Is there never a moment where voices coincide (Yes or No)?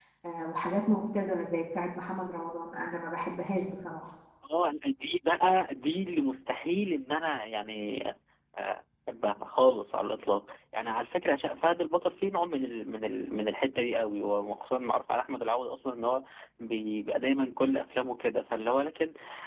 Yes